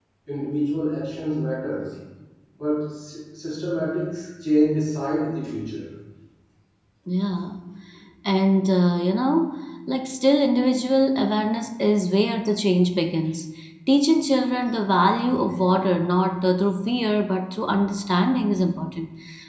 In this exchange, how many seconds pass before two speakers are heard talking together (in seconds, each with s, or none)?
none